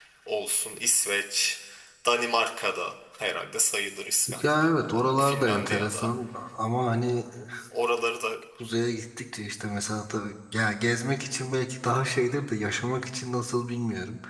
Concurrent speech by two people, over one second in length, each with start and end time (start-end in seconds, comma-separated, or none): 4.4-6.1